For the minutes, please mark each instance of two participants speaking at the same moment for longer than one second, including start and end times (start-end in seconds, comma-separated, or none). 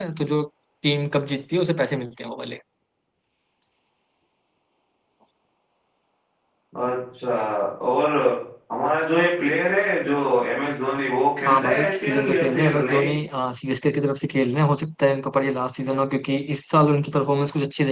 11.4-13.1